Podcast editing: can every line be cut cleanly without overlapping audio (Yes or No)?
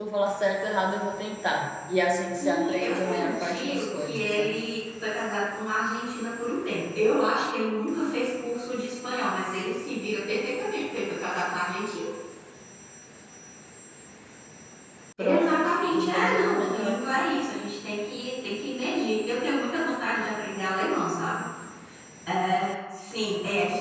No